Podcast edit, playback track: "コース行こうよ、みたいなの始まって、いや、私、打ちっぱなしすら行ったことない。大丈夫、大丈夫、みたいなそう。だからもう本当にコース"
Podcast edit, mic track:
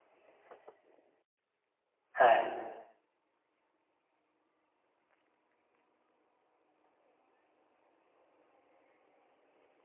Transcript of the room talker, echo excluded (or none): はい。